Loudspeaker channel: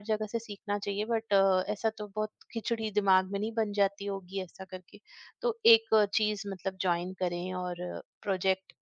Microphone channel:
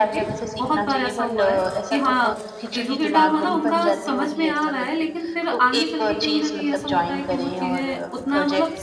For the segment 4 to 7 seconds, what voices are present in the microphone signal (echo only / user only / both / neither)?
both